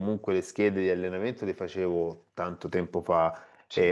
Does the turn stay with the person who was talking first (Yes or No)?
Yes